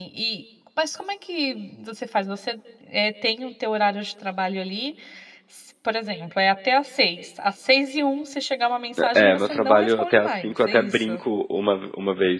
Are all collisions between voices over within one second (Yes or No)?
No